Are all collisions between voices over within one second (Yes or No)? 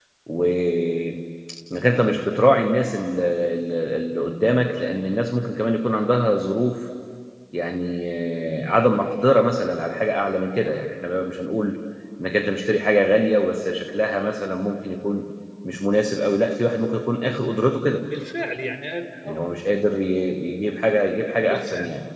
Yes